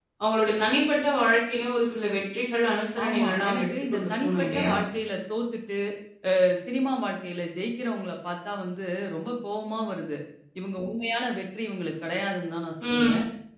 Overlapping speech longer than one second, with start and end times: 3.0-4.7

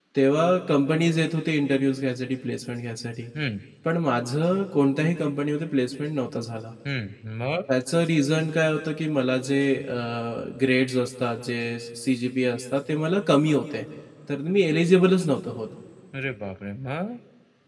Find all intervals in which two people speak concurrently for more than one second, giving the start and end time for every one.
none

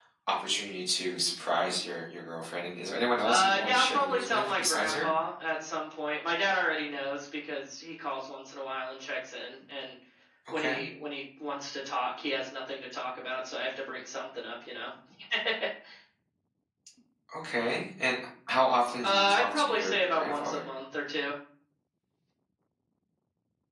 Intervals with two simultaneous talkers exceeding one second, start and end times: 3.2-5.1, 19.0-20.7

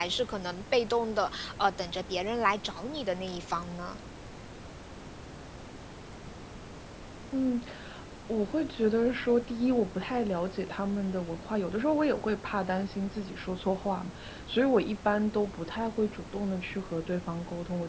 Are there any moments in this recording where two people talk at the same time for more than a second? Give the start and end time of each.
none

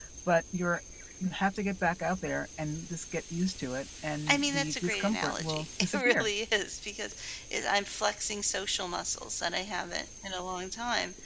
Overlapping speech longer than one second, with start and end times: 4.3-6.3

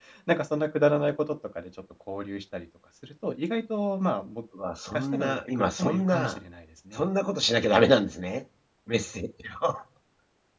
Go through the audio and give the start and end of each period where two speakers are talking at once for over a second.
4.9-6.4

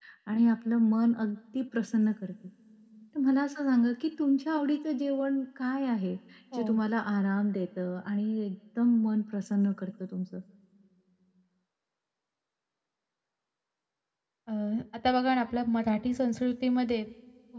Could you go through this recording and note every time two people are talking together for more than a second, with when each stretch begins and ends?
none

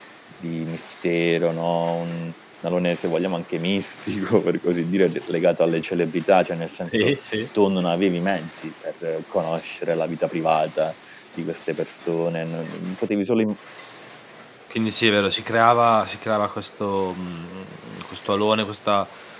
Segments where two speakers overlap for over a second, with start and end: none

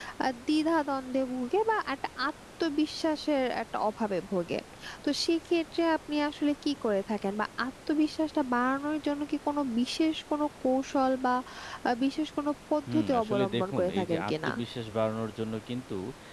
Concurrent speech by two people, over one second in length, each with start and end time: 12.9-14.5

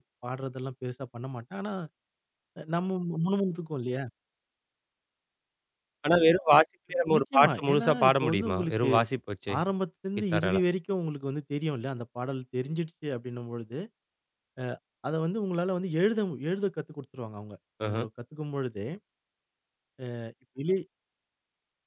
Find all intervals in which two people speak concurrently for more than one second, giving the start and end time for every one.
7.2-8.9

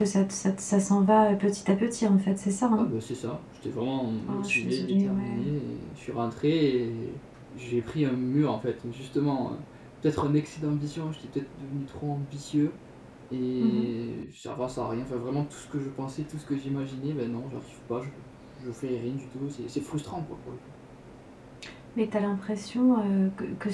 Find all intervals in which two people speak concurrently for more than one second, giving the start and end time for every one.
4.2-5.4

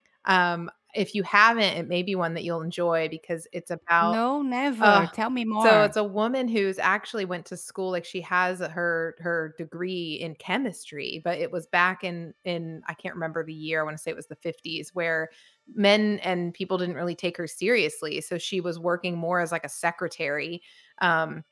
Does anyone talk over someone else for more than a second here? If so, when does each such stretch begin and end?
none

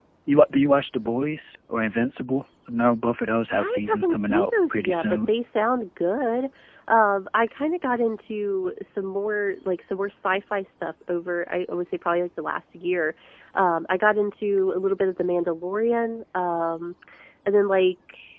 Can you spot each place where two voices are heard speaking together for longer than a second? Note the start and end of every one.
3.5-5.3

